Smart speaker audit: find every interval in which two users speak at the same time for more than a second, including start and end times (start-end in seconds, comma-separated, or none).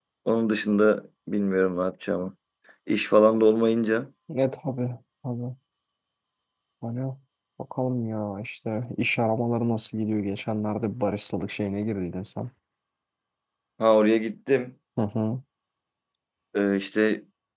none